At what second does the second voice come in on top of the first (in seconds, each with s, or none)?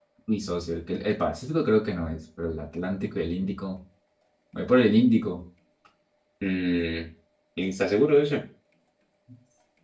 none